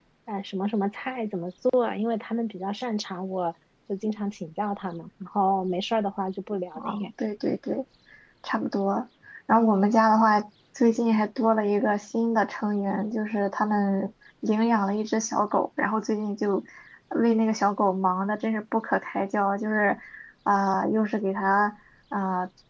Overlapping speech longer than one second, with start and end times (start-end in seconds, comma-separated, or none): none